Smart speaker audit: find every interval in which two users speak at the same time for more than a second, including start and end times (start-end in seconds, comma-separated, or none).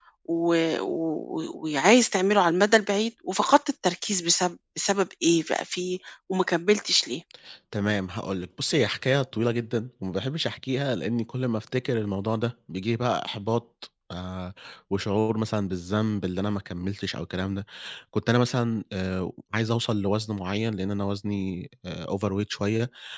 none